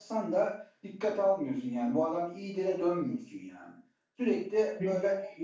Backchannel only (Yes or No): Yes